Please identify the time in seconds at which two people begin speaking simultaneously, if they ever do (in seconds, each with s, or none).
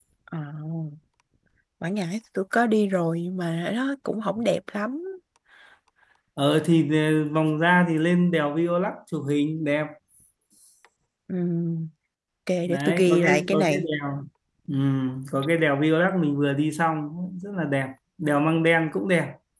12.7 s